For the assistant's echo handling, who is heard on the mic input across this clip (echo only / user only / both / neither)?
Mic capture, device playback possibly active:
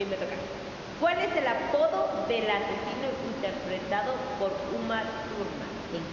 user only